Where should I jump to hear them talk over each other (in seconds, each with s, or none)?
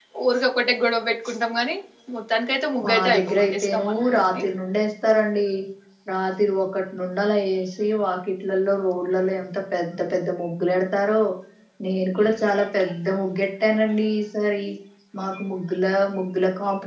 2.8 s